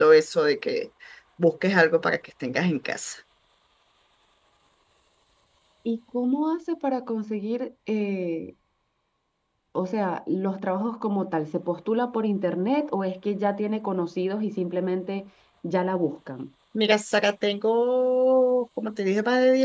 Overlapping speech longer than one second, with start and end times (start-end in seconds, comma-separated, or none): none